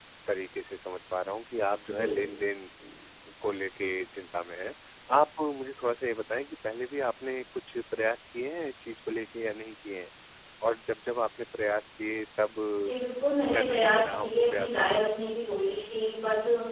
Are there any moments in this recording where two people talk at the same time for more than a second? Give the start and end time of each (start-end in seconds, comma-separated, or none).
13.5-15.0